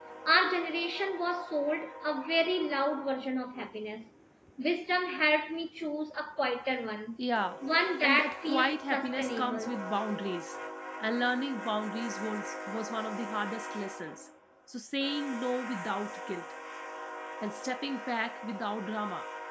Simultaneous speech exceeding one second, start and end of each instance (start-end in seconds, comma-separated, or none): 8.0-9.7